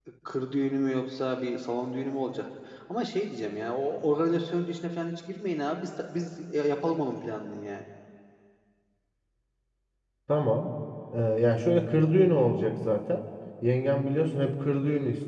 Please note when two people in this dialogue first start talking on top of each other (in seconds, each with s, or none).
none